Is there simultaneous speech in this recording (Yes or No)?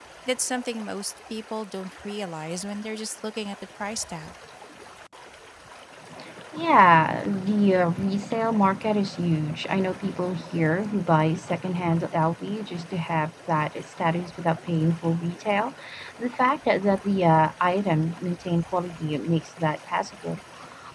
No